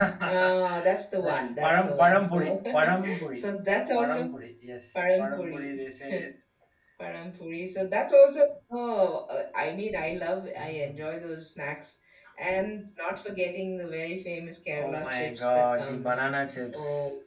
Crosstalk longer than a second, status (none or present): present